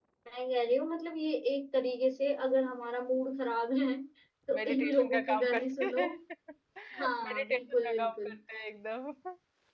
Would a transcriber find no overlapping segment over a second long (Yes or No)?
No